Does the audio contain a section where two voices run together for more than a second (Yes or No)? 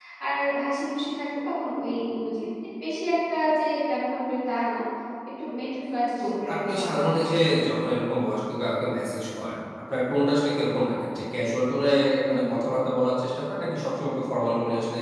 Yes